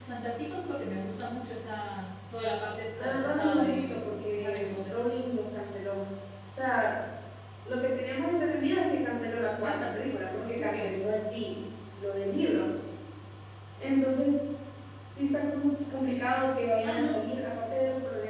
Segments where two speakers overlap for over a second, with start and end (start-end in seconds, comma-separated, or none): 3.0-4.9